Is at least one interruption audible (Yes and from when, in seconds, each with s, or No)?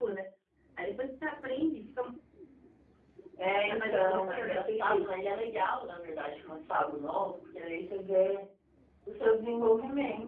Yes, from 3.5 s